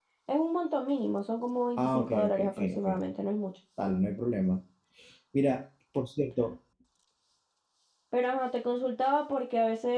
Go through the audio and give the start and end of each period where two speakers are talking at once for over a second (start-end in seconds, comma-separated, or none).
1.8-3.0